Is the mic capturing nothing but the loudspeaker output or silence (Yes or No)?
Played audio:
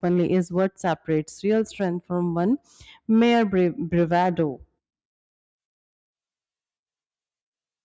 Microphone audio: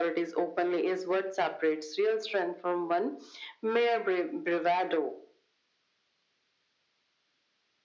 Yes